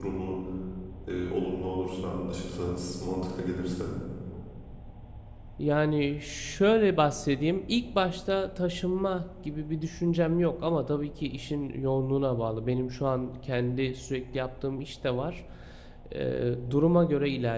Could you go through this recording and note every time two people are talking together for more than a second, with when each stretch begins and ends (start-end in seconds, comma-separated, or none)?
none